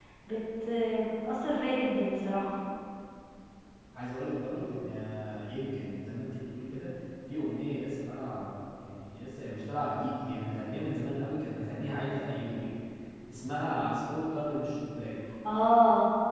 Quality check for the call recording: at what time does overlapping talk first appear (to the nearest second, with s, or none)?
none